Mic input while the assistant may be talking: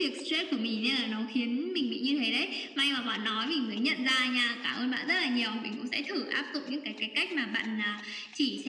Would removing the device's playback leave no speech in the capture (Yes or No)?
Yes